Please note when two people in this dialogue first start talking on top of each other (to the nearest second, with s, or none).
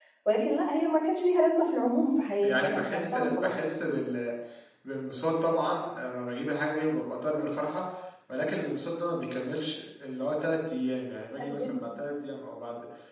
2 s